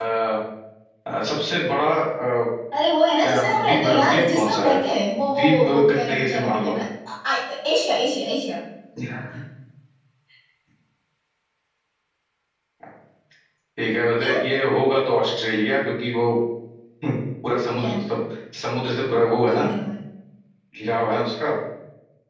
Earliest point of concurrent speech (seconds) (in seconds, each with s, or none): 3.2 s